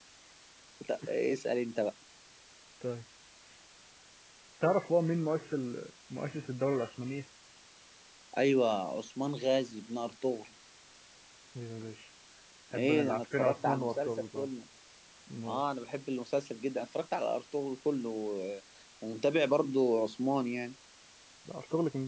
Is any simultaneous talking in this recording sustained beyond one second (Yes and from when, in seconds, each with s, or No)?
Yes, from 12.8 s